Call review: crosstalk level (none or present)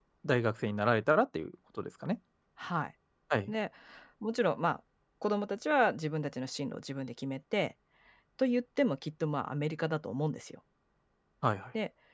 none